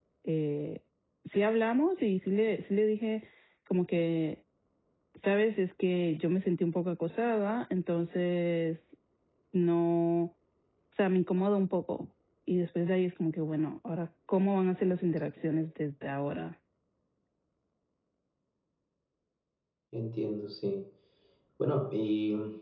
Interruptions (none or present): none